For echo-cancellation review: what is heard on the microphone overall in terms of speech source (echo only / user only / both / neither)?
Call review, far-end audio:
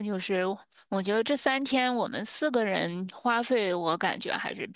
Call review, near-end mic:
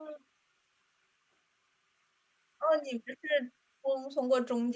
user only